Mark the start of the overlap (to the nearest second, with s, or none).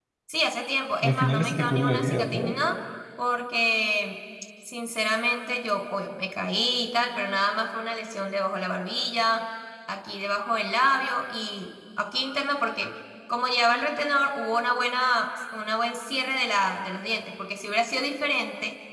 1 s